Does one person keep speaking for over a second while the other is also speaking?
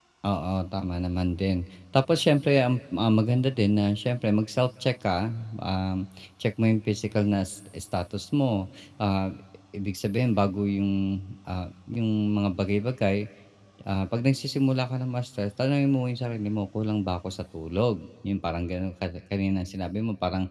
No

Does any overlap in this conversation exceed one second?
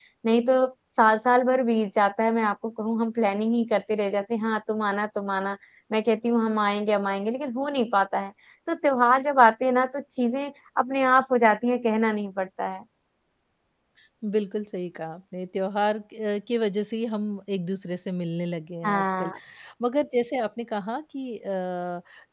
No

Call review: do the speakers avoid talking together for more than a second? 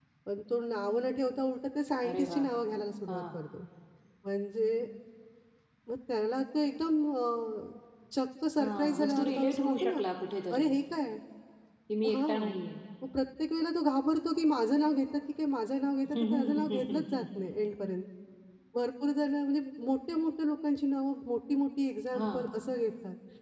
No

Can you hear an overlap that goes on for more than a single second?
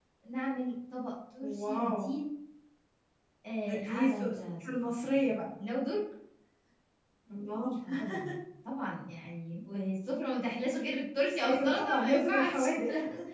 Yes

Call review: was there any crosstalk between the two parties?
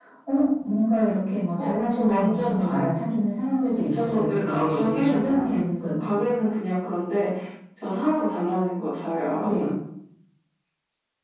Yes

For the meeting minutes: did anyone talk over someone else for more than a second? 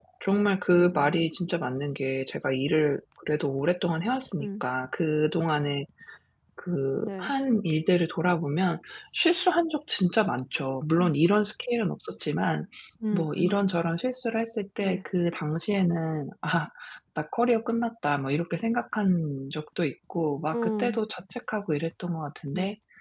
No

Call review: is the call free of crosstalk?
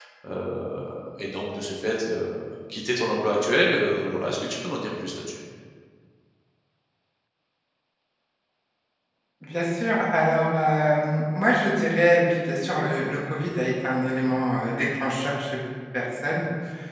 Yes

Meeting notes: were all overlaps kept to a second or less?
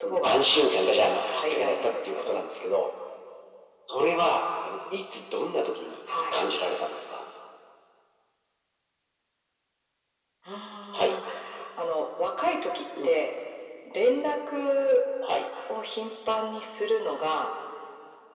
No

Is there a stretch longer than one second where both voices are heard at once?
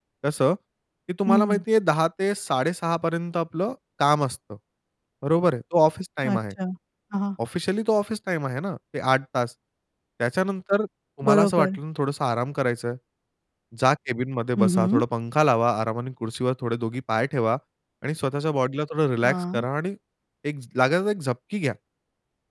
No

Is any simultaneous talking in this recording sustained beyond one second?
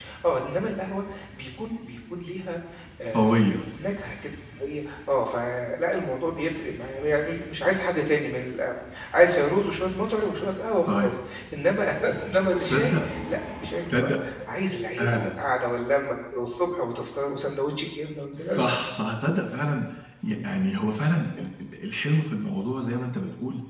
No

